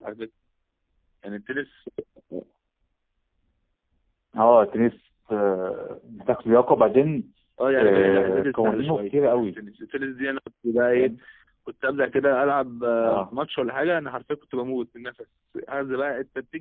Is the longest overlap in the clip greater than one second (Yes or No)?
Yes